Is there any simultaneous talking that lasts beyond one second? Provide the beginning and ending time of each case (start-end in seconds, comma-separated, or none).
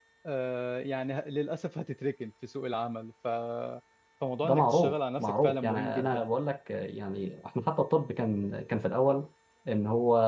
4.4-6.3